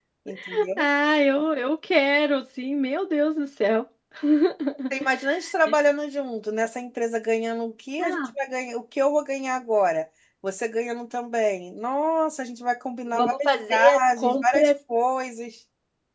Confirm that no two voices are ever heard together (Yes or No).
No